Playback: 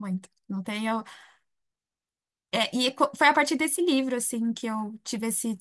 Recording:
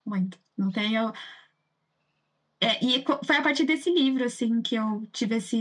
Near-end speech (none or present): none